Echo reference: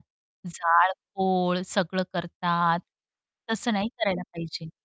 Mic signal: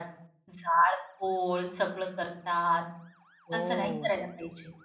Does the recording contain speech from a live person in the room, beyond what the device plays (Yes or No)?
Yes